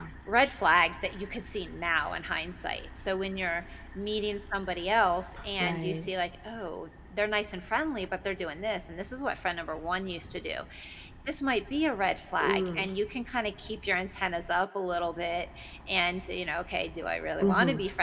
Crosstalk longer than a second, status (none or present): none